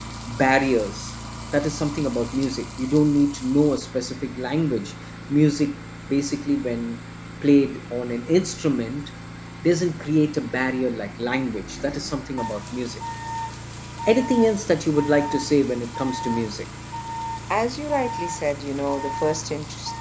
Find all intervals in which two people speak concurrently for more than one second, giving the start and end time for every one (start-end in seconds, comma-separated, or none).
none